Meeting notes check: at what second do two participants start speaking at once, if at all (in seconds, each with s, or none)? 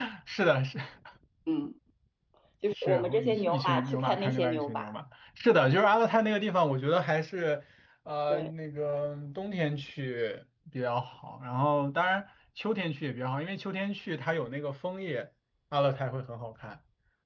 2.8 s